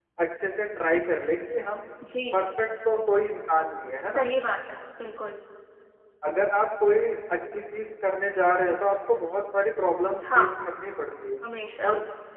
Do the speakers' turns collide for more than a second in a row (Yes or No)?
No